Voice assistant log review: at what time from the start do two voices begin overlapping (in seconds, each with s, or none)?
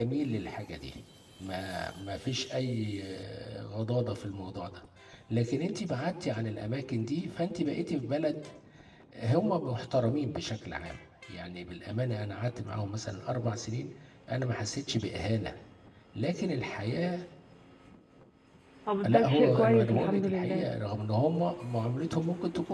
19.0 s